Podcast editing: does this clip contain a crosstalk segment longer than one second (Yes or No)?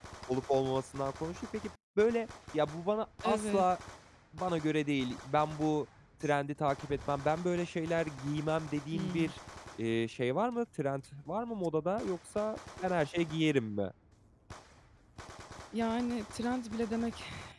No